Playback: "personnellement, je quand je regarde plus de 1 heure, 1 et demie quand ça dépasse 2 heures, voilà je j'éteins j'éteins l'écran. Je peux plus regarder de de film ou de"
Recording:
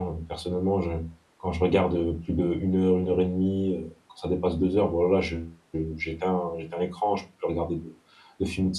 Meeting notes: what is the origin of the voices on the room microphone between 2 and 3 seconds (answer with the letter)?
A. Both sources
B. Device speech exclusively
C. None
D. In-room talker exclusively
B